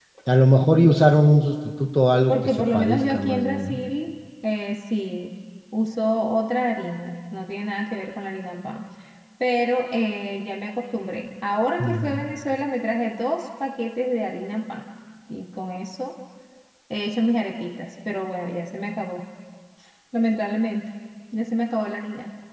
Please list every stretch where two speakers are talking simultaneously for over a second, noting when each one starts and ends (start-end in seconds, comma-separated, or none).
2.3-3.8